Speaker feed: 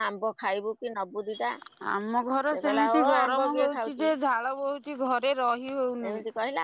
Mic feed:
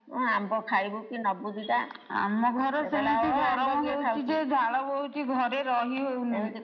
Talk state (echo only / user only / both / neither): echo only